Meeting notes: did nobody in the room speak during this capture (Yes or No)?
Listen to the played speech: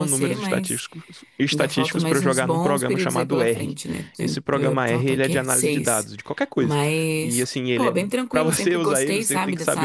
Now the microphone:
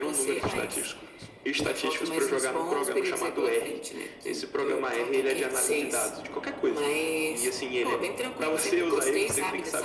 Yes